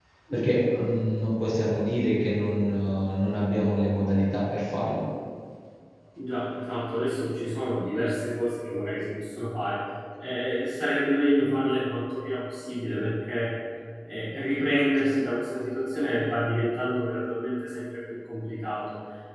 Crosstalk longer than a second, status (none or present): none